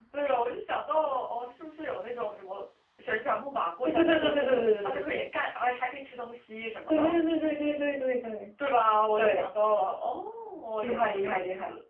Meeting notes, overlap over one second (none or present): present